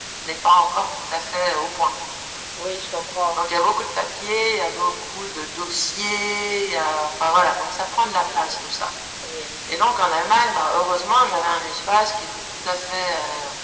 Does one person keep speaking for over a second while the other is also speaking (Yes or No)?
No